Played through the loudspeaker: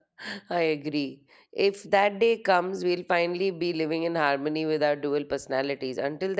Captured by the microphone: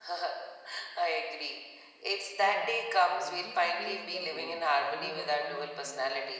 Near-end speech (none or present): present